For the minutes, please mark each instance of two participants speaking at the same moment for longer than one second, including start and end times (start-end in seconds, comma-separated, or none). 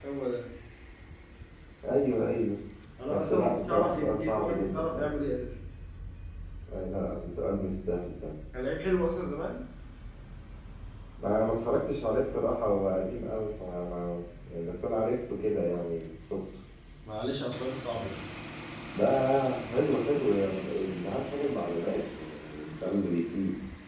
3.1-5.1